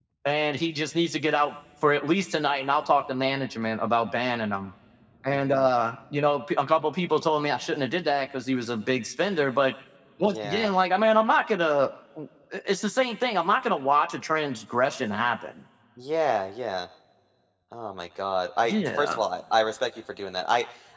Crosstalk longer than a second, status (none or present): none